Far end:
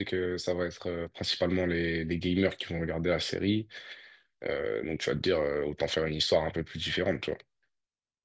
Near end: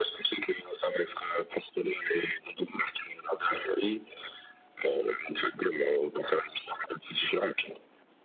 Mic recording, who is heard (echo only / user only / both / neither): echo only